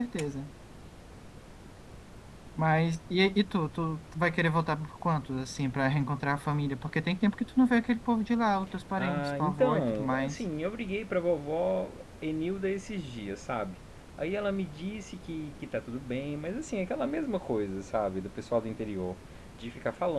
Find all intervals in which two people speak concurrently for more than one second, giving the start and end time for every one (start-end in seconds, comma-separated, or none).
8.9-10.4